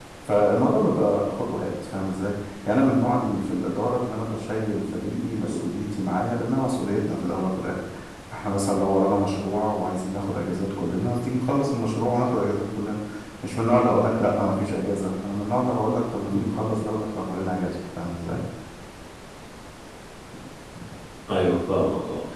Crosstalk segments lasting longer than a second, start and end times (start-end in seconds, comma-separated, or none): none